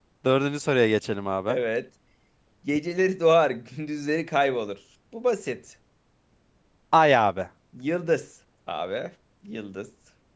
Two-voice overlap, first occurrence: none

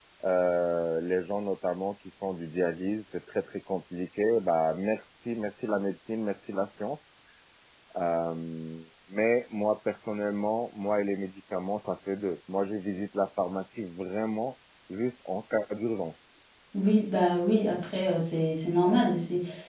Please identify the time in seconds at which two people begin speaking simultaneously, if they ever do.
none

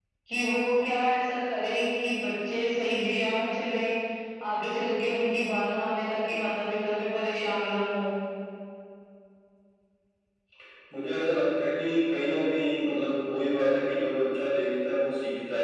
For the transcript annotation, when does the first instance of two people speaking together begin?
none

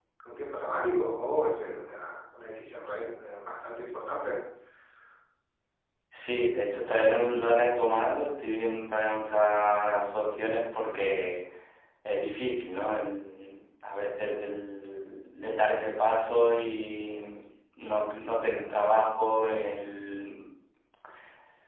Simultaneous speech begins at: none

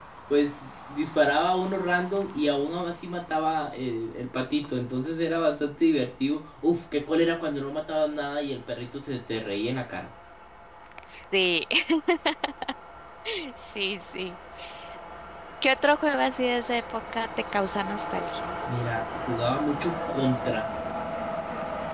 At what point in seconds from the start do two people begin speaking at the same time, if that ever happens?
none

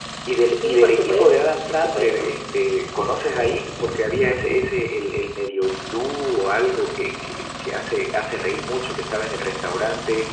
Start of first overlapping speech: 1 s

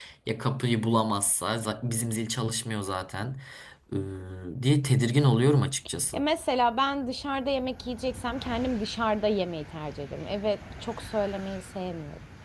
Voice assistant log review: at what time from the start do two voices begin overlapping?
none

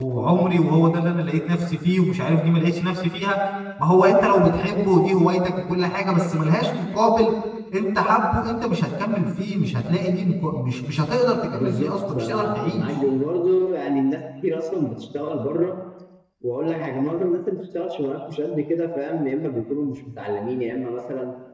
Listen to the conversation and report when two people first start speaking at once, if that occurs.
12 s

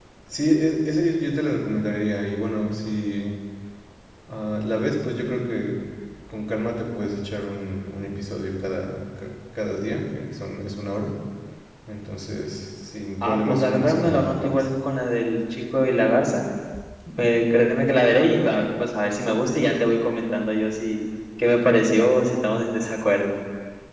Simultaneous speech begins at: 13 s

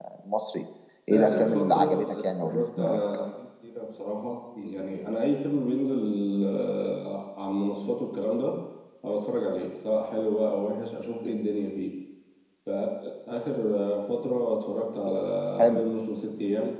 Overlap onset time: 1 s

